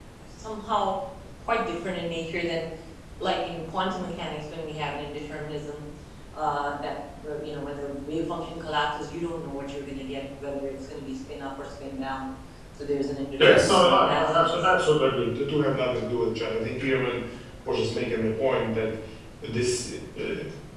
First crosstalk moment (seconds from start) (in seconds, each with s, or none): 13.4 s